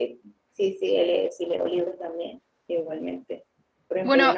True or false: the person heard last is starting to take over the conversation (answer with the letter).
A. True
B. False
B